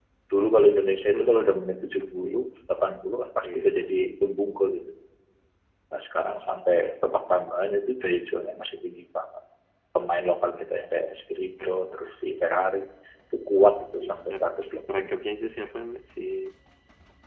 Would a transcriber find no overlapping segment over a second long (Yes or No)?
No